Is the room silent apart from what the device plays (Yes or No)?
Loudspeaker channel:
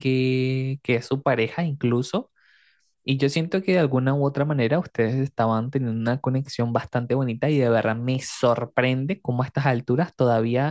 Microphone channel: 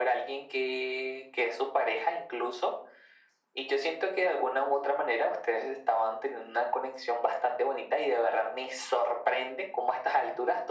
Yes